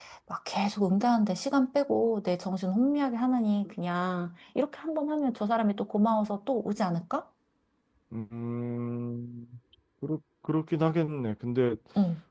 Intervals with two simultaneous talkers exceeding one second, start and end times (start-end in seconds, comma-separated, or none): none